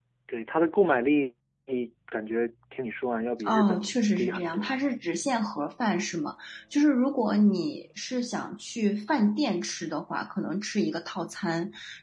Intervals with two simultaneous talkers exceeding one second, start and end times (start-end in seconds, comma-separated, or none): 3.5-4.7